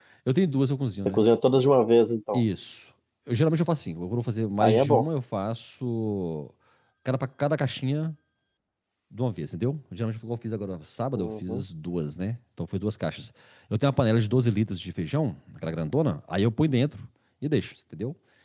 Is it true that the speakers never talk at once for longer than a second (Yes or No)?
Yes